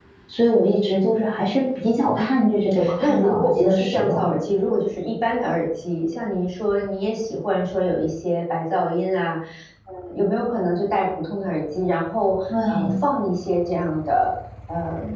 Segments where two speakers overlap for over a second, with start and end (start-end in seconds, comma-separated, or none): 2.2-4.3